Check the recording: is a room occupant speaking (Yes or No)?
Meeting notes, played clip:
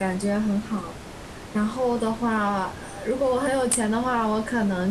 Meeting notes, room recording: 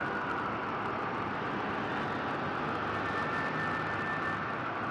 No